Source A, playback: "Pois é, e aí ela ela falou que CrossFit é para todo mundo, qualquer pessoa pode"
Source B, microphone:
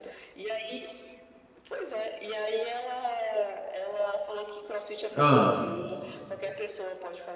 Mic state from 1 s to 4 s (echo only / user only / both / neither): echo only